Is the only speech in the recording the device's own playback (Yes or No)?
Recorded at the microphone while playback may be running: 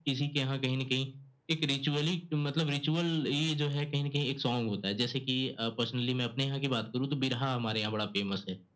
Yes